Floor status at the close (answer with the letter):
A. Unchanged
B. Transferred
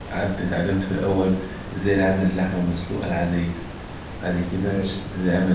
A